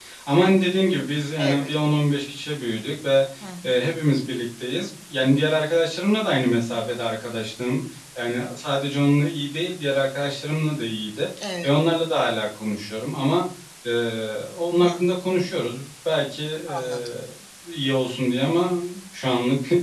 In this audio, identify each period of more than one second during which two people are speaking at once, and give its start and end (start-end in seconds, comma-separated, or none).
none